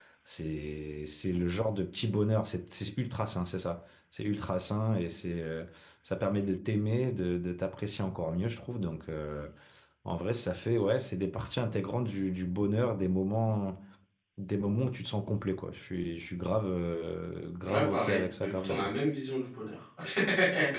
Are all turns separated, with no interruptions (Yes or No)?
No